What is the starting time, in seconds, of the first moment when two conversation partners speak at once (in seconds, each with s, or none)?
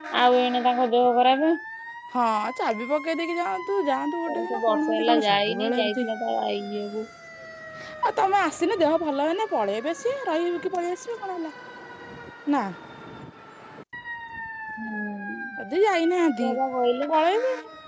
4.3 s